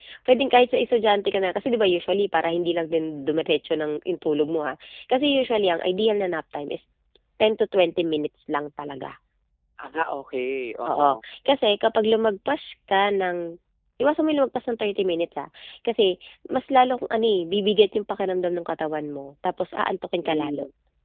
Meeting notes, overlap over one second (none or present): none